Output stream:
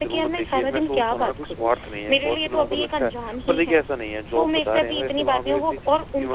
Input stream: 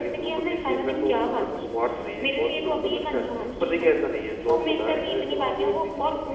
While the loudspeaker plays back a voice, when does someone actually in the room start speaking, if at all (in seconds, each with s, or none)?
none